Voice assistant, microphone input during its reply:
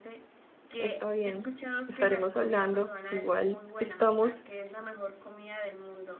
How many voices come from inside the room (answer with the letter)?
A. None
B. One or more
B